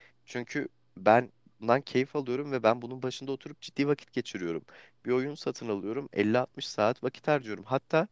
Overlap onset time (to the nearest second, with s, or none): none